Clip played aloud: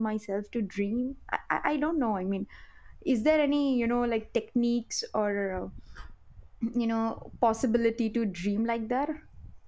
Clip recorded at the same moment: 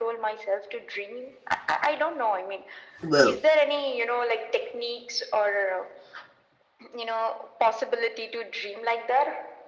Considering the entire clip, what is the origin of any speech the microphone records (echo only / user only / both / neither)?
both